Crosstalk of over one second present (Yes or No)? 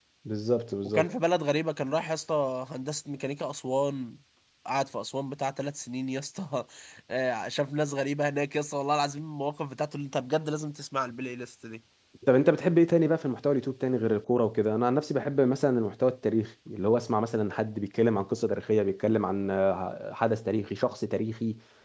No